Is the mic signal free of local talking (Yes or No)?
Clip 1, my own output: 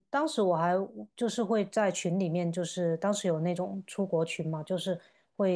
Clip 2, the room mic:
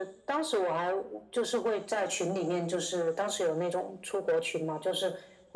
Yes